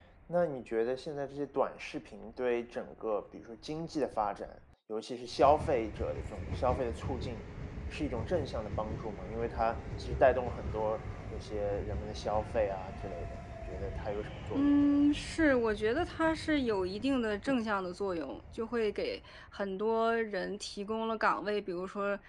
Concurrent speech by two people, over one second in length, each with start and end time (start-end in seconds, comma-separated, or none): none